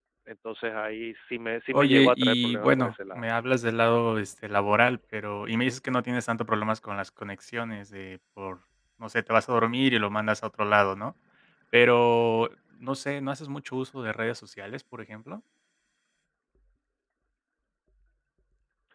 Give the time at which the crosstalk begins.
1.7 s

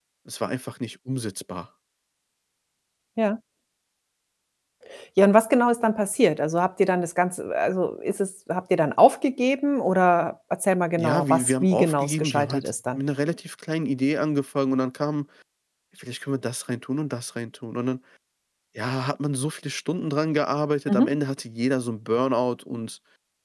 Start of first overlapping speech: 11.0 s

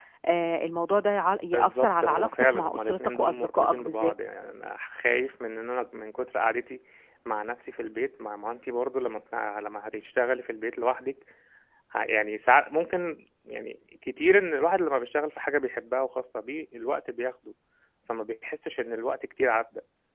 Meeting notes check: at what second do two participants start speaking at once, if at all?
1.5 s

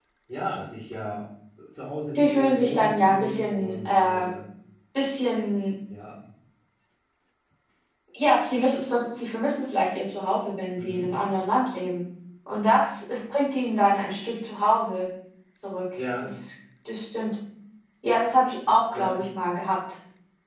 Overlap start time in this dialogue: 2.2 s

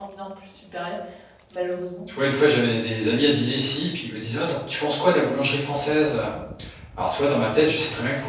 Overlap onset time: none

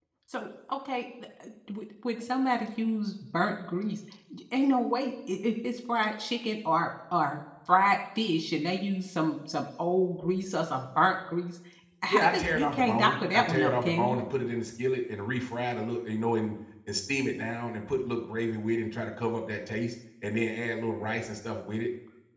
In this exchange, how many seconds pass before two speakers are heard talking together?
12.1 s

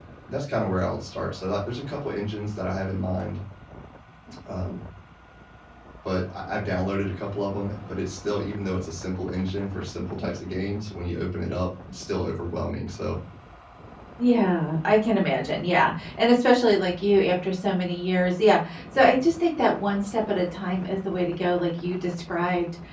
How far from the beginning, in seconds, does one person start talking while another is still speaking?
none

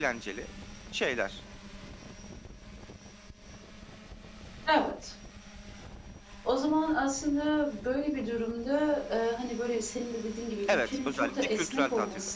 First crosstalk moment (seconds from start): 10.6 s

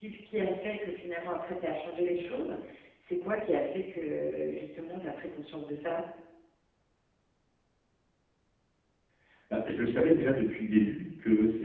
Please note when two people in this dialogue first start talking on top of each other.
none

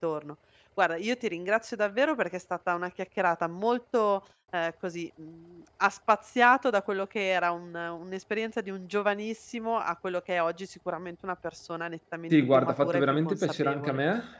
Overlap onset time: 12.3 s

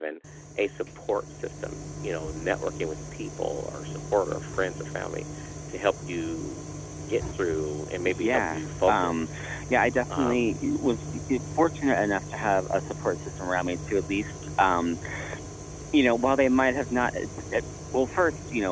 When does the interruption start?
8.0 s

